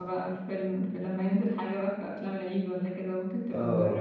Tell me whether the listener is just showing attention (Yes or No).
No